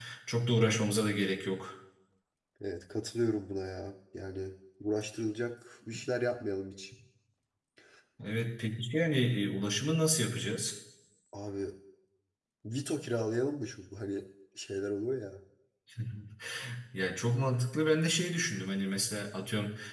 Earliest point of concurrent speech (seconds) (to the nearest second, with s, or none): none